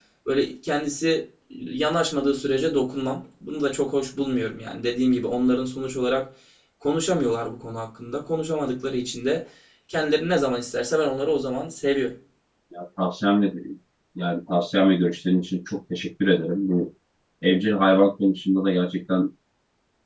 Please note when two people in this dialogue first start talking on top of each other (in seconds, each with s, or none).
none